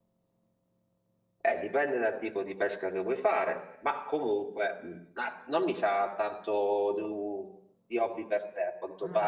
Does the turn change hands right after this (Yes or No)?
No